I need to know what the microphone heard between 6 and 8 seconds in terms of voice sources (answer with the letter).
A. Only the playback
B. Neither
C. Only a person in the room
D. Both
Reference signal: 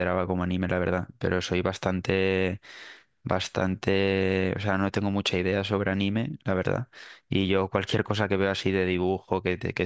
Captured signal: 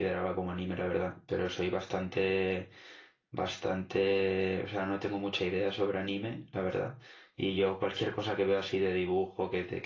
A